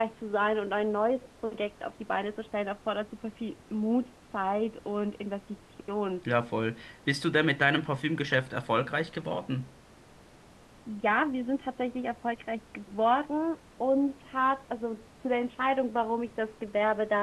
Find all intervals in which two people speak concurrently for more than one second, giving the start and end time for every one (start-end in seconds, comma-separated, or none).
none